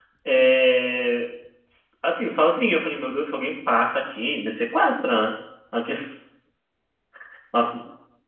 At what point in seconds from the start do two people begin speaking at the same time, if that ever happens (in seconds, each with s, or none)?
none